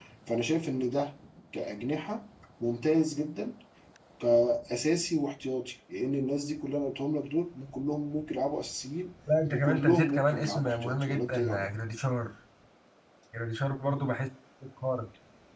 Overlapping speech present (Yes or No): Yes